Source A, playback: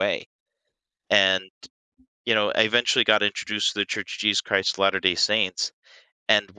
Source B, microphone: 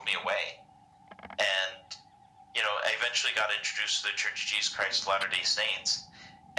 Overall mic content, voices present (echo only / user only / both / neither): echo only